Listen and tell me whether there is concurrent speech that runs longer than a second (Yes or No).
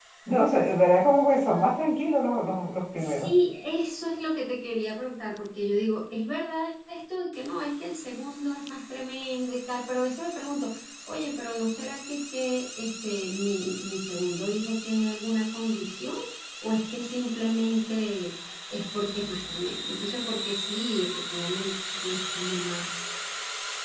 No